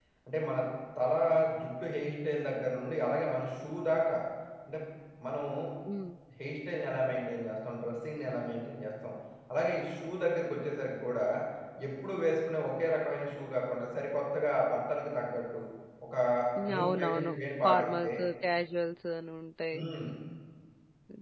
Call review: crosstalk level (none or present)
present